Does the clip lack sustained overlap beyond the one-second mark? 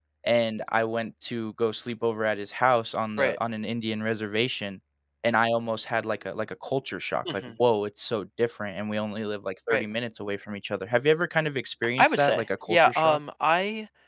No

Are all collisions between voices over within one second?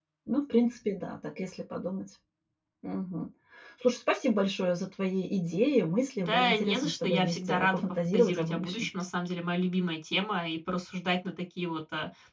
No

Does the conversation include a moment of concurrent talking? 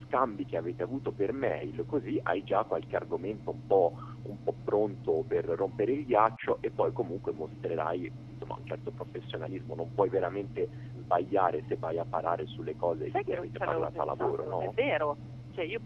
Yes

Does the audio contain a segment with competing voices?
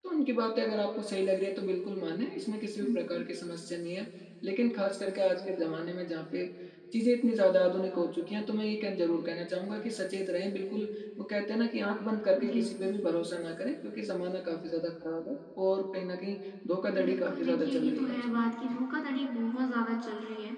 Yes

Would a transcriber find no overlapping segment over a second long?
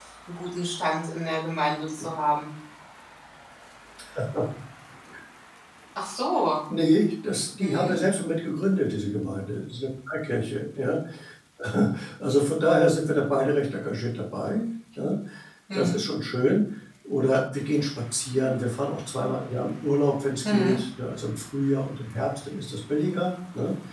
Yes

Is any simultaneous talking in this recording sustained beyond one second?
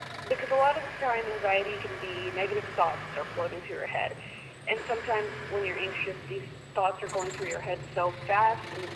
No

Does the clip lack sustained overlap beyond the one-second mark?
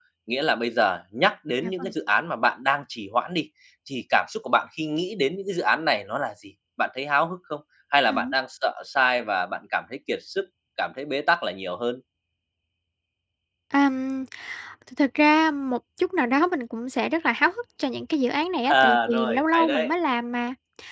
No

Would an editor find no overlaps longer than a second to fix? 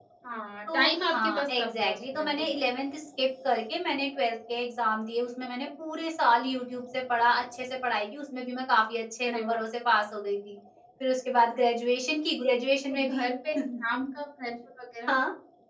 No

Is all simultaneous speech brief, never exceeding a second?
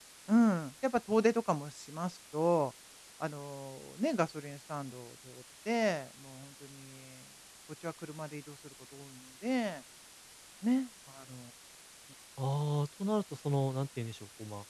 Yes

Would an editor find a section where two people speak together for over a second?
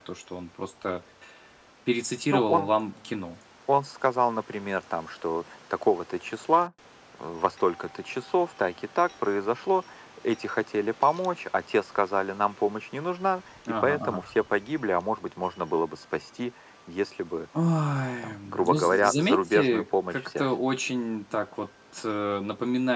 Yes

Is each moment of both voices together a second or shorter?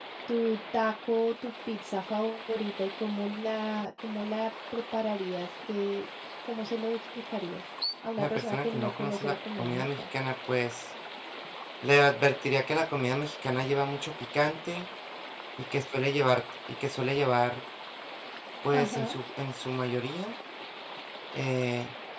No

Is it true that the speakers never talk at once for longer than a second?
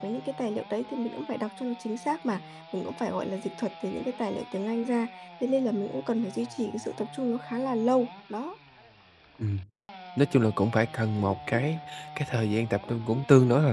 Yes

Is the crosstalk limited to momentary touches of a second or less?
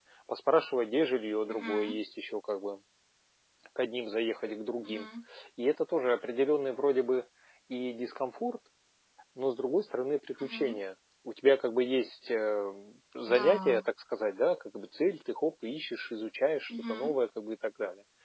Yes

